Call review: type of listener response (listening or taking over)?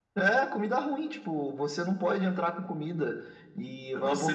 taking over